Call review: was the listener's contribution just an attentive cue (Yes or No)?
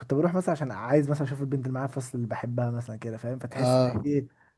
Yes